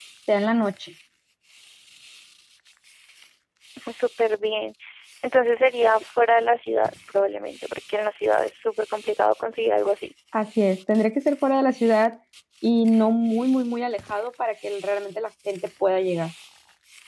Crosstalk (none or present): none